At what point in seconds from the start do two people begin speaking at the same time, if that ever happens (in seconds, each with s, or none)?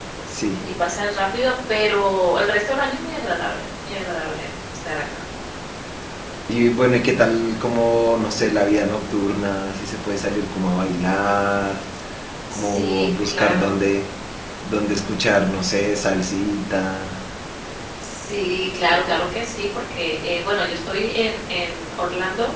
12.5 s